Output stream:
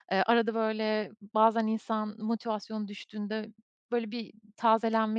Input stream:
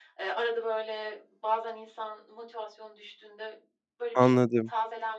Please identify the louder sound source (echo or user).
user